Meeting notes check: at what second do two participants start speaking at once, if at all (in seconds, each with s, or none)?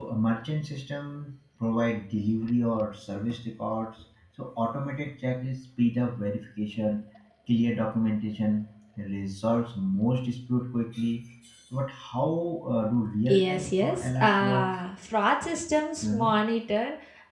13.3 s